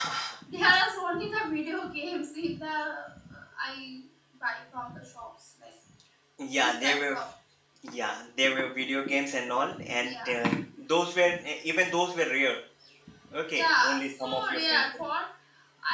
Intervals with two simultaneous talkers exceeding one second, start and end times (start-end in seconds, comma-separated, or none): 13.5-15.0